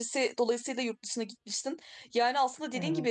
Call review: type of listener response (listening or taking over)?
listening